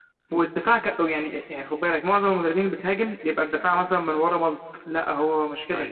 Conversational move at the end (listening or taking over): listening